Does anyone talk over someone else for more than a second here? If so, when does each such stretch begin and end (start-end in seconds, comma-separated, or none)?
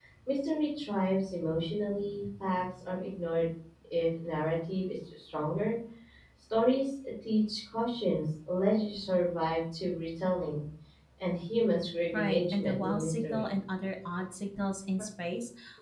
12.1-13.5